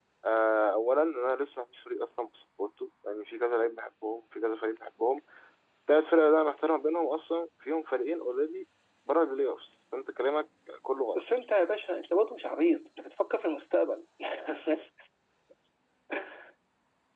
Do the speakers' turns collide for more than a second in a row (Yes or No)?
No